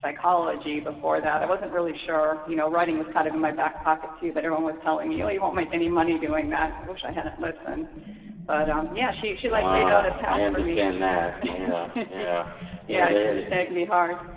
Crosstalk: present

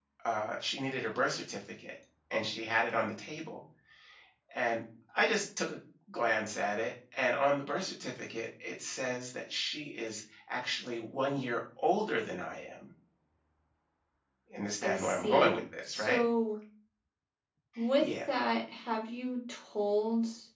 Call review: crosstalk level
present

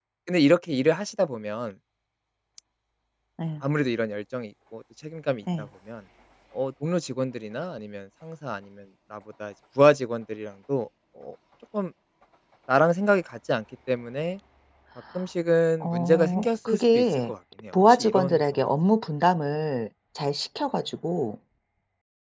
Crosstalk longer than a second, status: present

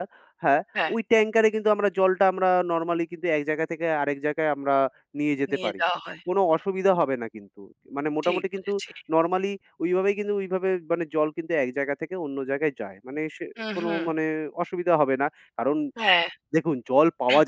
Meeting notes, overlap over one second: none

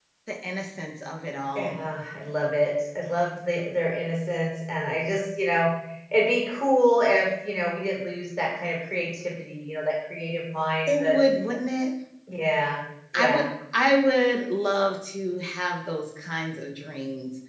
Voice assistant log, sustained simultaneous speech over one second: none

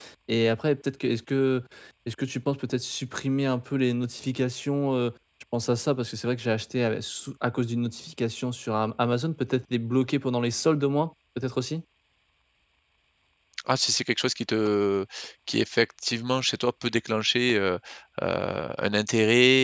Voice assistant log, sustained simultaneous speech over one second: none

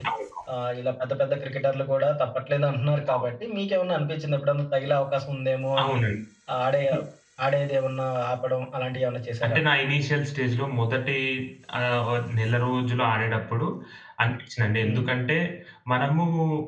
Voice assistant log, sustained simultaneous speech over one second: none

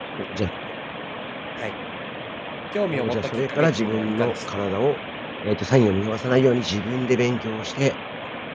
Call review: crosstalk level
present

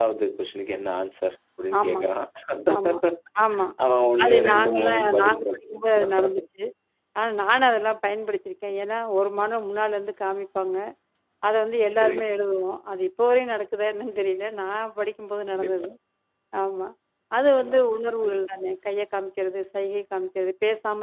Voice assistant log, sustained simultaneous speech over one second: present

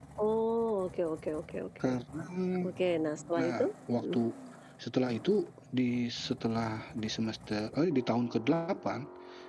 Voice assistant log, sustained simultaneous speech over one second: none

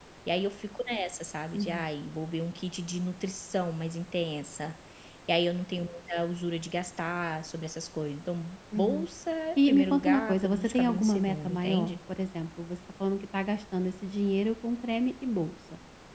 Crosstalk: present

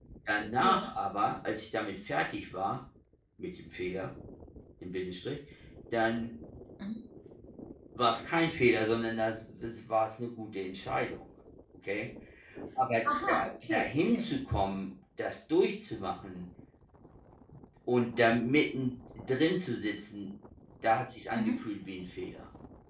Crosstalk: present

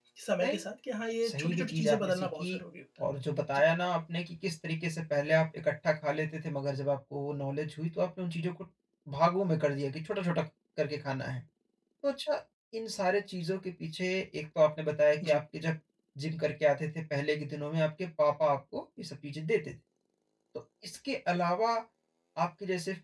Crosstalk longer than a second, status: present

